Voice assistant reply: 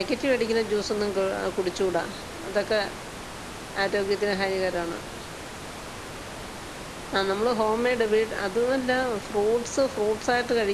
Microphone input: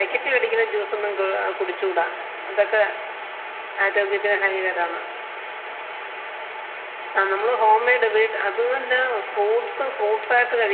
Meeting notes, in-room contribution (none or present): none